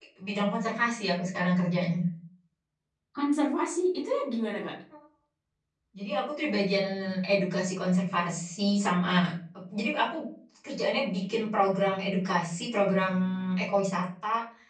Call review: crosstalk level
none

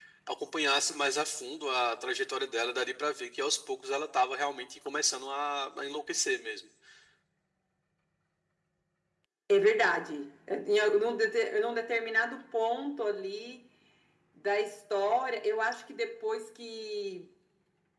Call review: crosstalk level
none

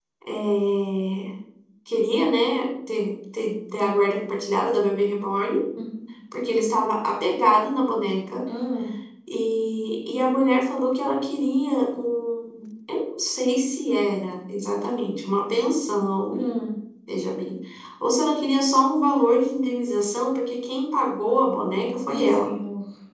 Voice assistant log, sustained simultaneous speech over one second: none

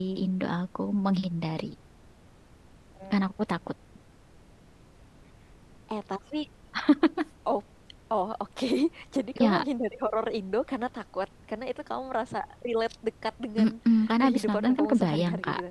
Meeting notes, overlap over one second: present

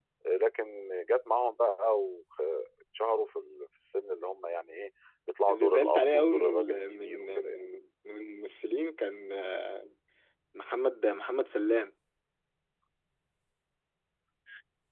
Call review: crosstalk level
present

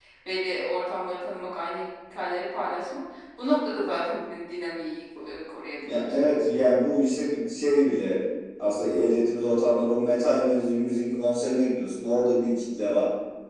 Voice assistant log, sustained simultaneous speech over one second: none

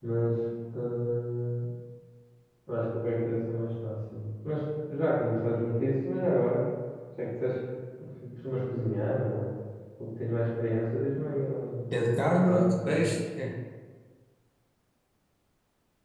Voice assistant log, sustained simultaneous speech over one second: present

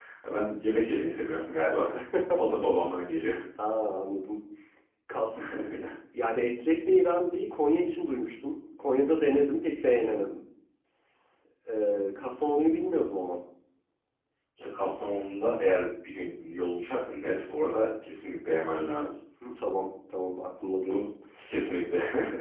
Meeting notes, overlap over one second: none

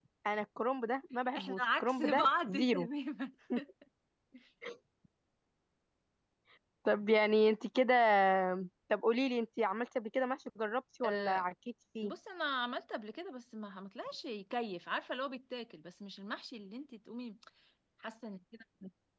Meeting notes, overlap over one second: present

